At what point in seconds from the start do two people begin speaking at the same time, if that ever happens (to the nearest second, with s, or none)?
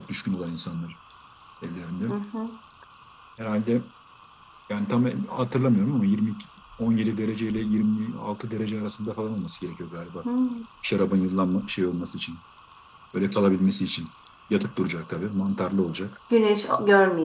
none